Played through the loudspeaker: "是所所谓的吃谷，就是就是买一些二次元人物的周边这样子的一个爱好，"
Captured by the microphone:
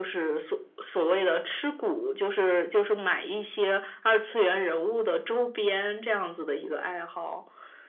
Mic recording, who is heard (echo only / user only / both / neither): echo only